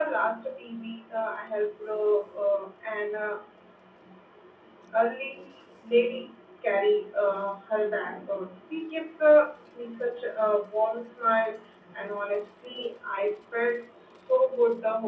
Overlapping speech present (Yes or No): No